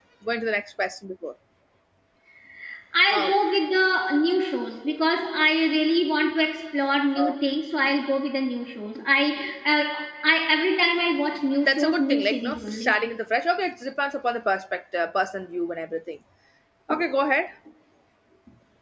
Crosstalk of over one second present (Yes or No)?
Yes